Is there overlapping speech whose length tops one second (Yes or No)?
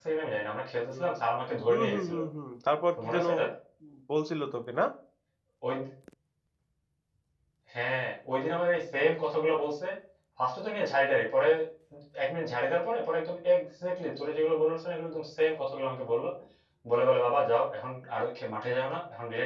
No